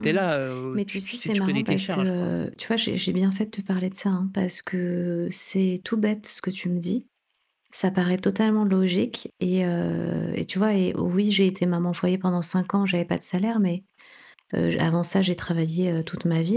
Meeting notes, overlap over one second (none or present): present